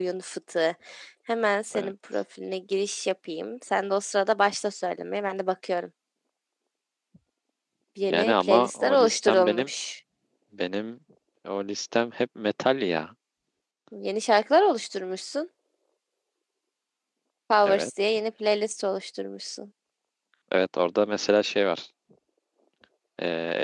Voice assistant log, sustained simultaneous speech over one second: present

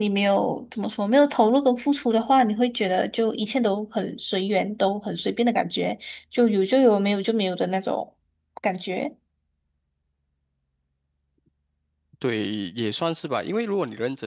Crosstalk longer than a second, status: none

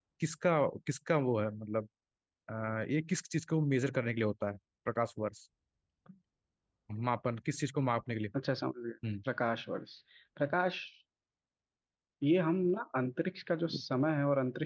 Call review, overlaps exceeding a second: none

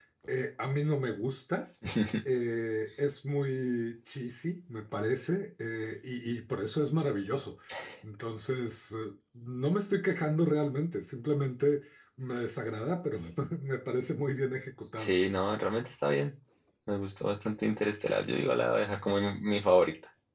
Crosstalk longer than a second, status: none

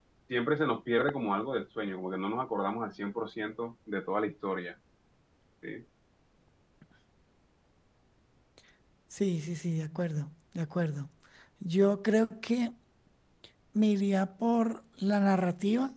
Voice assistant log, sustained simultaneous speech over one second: none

